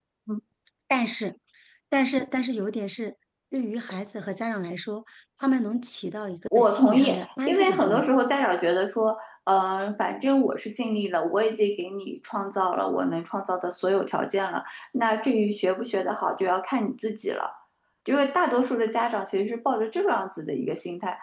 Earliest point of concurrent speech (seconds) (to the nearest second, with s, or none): 7 s